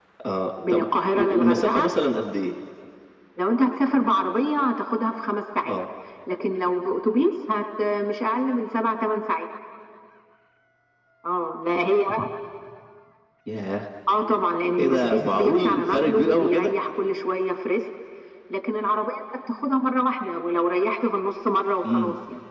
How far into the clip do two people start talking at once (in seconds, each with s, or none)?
0.7 s